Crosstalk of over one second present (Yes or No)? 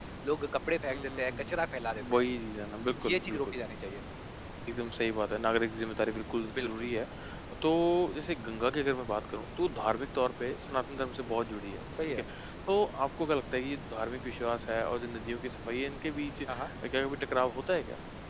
Yes